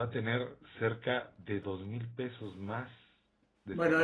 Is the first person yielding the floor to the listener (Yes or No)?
Yes